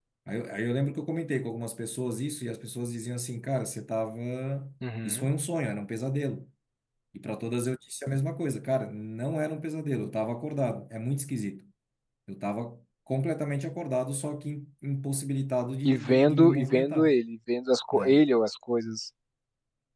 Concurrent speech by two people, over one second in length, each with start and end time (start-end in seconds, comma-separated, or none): 15.8-17.2